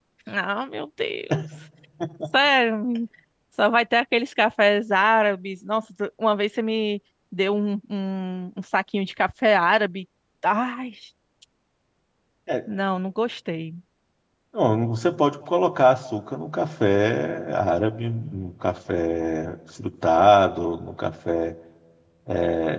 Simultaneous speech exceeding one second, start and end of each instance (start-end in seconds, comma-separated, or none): none